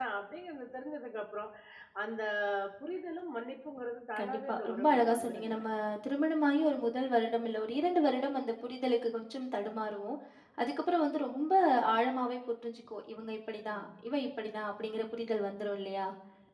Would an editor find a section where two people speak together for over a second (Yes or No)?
Yes